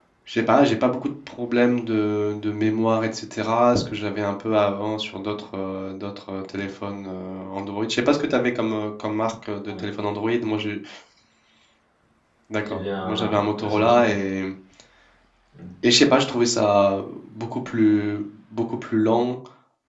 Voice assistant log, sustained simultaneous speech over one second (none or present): present